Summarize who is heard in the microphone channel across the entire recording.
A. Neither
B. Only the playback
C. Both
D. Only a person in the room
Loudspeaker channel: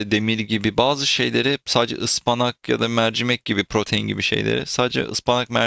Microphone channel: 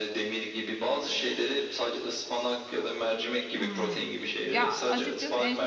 C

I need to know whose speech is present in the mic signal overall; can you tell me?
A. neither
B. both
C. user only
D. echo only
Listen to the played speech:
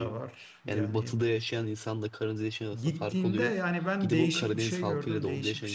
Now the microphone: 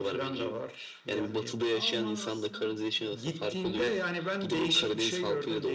B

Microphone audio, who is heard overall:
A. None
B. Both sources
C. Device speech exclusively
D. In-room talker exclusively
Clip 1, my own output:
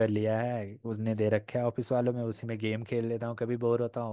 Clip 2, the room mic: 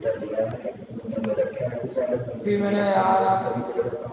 B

